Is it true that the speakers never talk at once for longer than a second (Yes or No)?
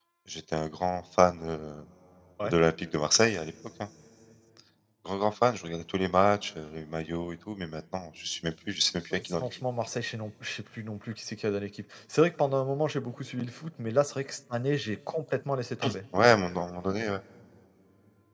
Yes